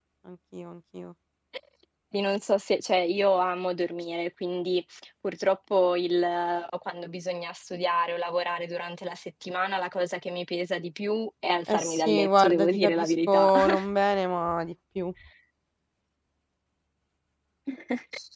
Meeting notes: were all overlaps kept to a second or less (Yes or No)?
No